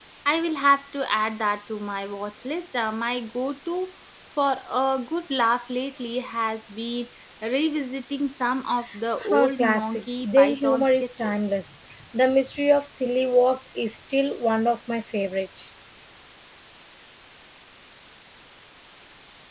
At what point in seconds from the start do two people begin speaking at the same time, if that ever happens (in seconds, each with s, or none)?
9.2 s